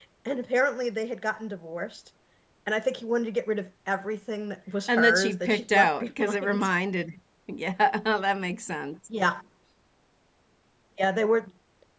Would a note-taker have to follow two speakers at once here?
Yes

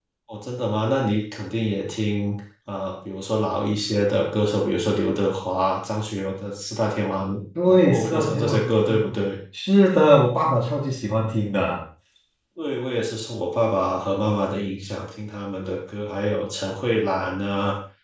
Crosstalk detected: Yes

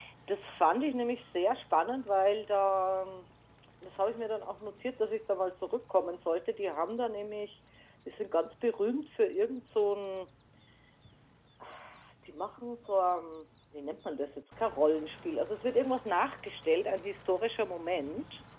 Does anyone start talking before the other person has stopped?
No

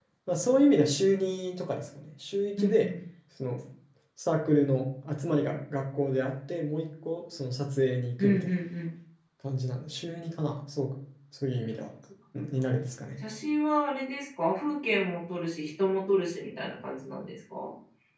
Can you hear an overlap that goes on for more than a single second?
No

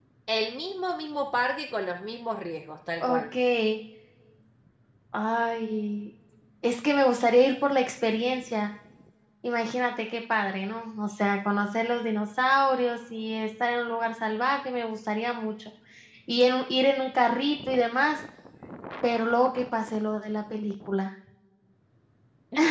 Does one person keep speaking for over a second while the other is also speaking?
No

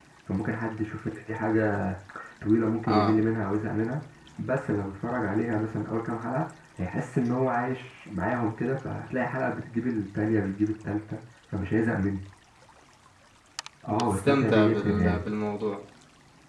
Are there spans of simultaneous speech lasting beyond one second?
Yes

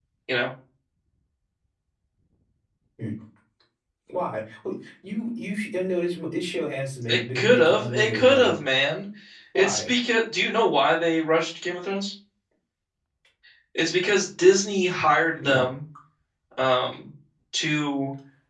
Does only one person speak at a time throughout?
No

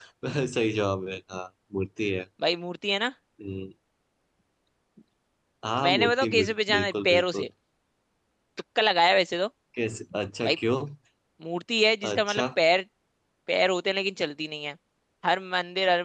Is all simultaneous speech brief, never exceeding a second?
No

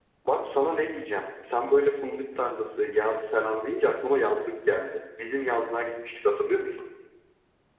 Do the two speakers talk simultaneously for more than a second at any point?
No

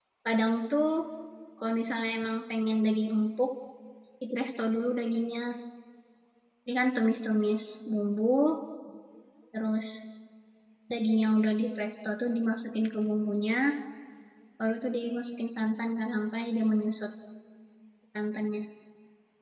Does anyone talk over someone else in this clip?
No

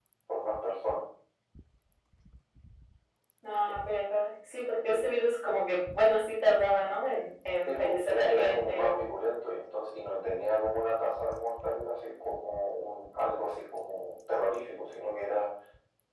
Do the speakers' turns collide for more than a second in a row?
Yes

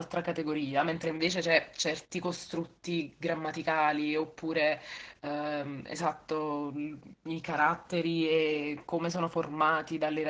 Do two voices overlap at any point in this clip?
No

